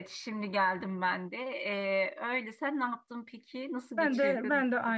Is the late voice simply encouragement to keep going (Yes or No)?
No